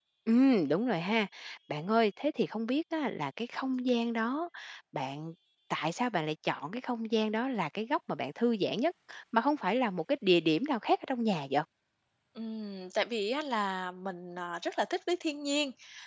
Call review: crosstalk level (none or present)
none